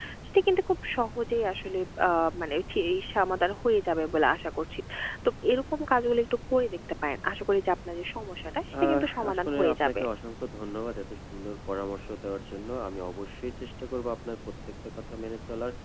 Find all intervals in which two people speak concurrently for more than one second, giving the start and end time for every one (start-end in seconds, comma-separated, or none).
8.8-10.0